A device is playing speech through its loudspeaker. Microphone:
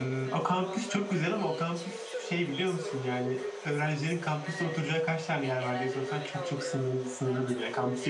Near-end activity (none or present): present